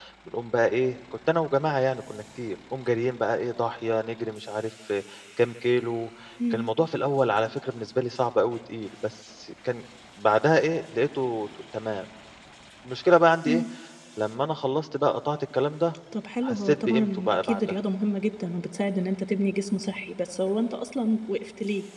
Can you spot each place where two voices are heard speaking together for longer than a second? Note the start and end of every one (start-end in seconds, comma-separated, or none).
16.4-17.8